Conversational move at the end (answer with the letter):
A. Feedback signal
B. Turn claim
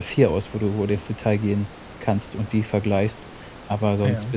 A